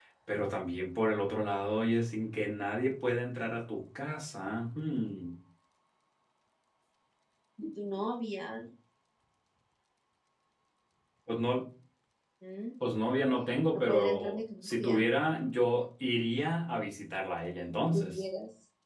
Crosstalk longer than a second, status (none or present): present